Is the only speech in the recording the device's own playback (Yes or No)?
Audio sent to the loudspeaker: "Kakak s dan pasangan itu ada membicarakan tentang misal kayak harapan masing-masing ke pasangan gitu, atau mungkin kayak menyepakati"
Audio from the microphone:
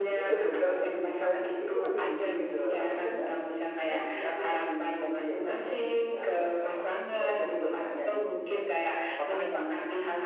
No